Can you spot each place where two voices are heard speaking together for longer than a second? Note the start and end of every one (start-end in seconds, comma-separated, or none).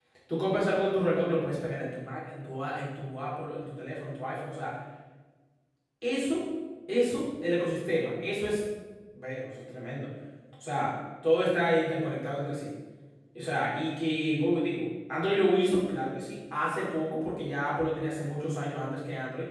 none